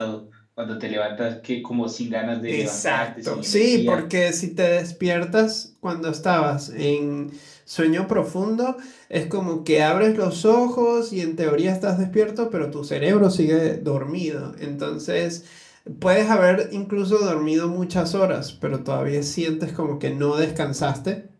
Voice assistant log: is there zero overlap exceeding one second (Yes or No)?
No